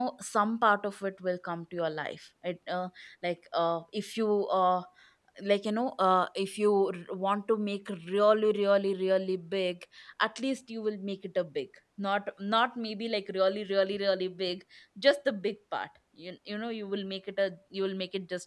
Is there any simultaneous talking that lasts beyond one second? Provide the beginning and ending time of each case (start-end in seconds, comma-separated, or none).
none